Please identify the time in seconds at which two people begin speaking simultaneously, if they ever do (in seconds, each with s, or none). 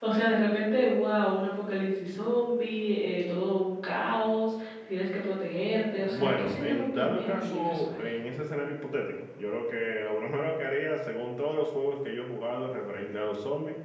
6.0 s